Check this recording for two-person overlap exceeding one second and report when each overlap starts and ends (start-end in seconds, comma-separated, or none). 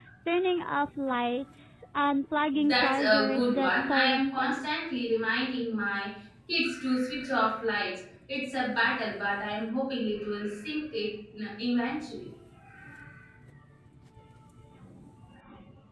2.5-4.7